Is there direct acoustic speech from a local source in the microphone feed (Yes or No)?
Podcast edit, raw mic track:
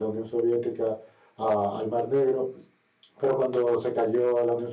Yes